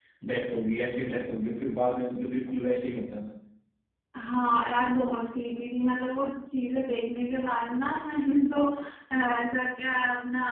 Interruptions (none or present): none